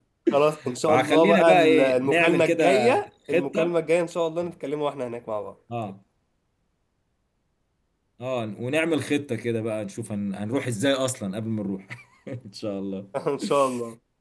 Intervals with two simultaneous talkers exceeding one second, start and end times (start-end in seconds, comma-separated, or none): 0.9-2.9